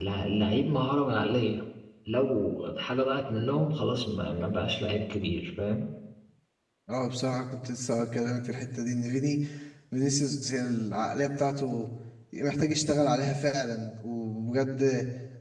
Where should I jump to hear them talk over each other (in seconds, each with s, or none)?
none